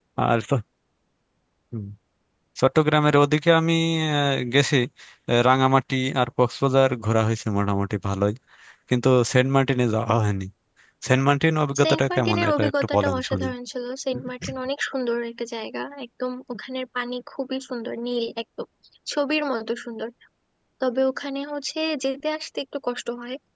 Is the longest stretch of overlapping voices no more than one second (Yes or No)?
No